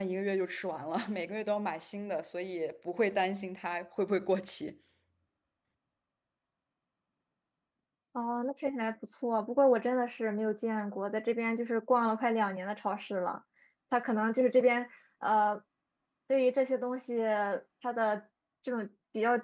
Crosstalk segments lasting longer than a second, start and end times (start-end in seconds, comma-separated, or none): none